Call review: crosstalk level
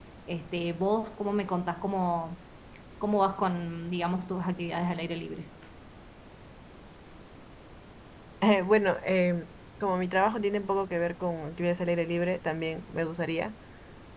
none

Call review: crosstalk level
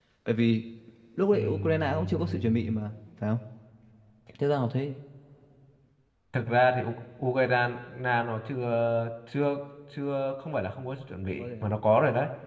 present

